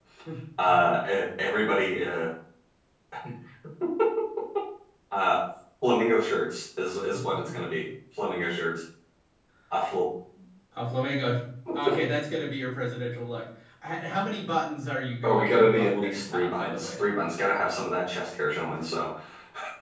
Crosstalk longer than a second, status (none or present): present